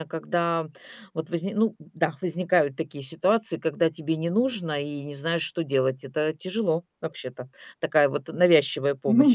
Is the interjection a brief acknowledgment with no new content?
No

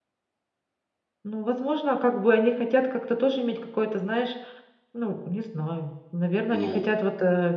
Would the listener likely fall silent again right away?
Yes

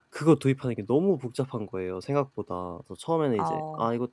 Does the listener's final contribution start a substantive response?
No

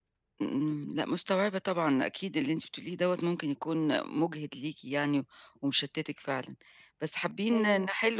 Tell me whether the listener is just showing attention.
Yes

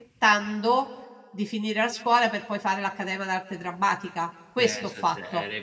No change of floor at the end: No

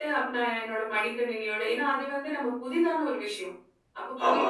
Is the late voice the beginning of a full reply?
No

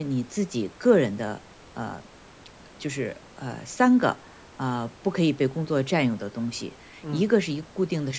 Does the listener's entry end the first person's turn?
No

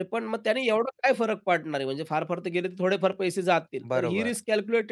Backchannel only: Yes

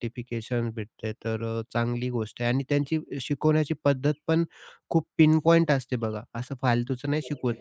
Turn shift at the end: No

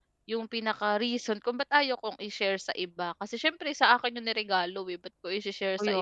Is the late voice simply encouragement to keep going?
No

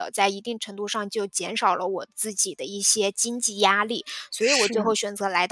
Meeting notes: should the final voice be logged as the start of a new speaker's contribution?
No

